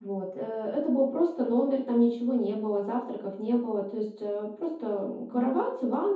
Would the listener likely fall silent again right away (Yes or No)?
Yes